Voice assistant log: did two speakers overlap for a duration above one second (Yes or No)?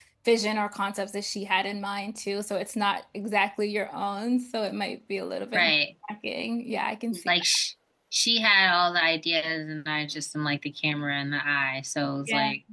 No